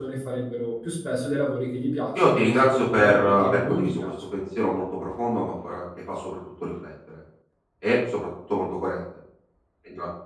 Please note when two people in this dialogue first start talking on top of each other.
2 s

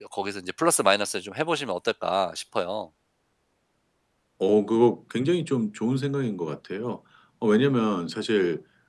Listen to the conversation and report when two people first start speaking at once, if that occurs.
none

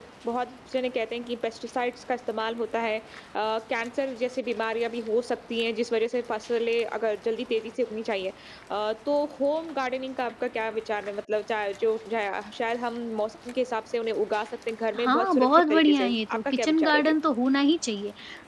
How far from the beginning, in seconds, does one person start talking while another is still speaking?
15 s

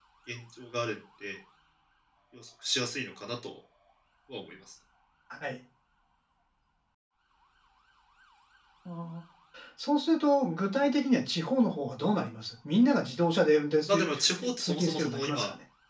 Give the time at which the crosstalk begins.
14 s

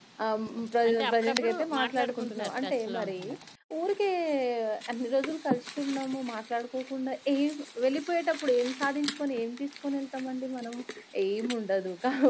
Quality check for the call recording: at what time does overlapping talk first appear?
1 s

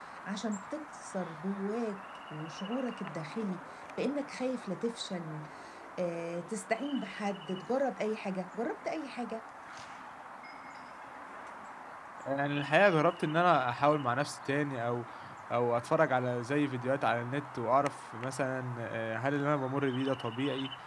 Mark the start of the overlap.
none

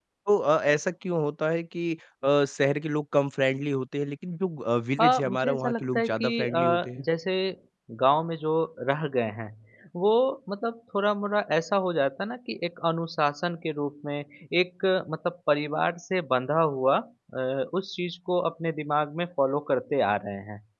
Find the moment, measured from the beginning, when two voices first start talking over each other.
5 s

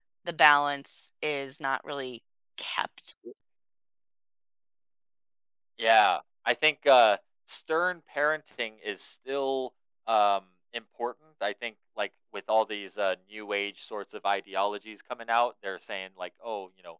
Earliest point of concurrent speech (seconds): none

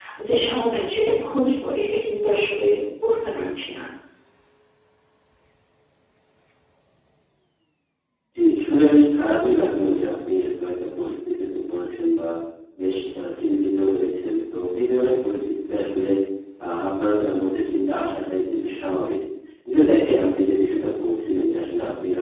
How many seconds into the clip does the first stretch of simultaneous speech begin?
none

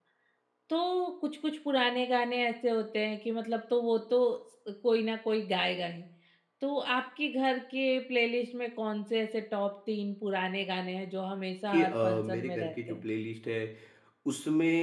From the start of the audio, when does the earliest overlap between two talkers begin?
12 s

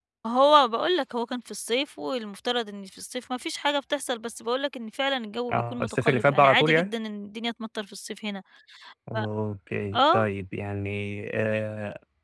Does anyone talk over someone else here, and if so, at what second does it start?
6 s

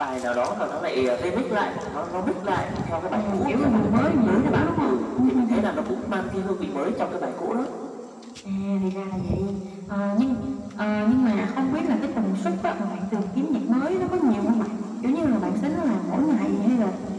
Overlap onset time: 3 s

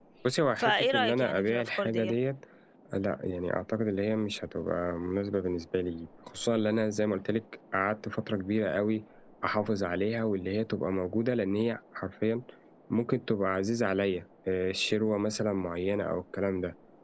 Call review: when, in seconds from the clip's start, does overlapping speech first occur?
1 s

